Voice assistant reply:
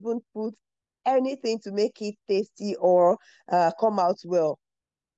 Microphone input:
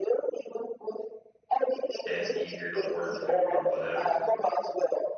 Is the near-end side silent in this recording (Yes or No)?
No